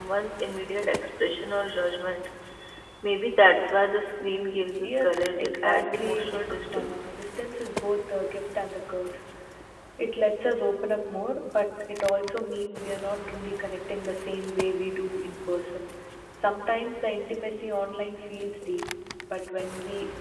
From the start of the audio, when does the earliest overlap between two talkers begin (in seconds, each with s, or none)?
4.8 s